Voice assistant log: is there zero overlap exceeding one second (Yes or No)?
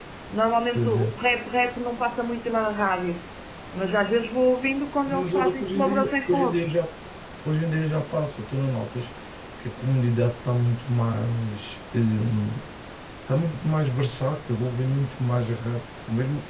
No